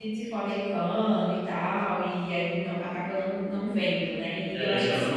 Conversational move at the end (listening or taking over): taking over